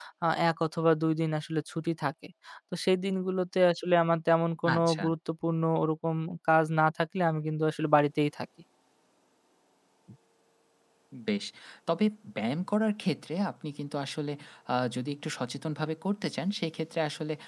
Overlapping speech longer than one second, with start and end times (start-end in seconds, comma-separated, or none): none